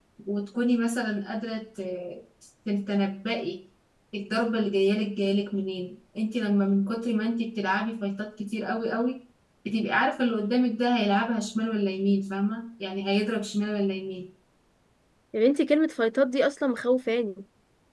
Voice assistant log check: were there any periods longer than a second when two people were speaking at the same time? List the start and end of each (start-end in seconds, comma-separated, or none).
none